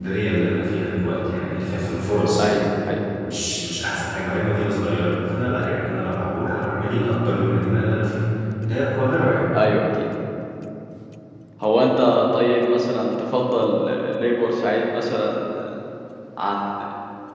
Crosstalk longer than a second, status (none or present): none